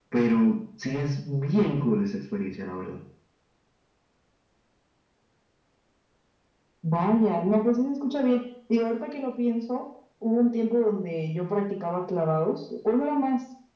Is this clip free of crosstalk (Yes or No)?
Yes